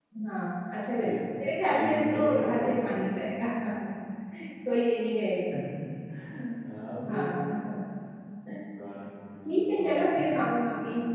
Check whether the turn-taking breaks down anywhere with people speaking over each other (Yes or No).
Yes